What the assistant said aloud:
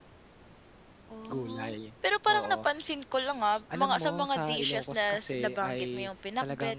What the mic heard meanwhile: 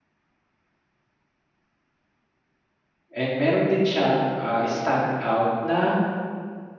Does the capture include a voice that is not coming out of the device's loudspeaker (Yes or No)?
Yes